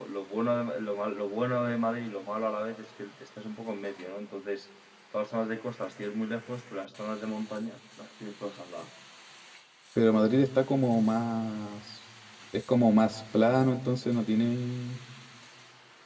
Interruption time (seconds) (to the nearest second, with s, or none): none